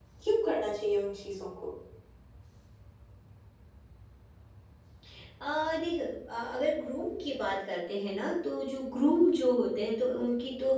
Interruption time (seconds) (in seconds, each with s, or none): none